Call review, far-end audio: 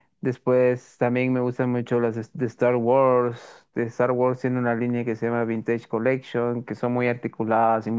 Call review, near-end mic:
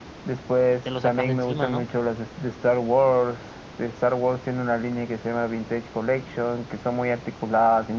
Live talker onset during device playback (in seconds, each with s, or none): 0.7 s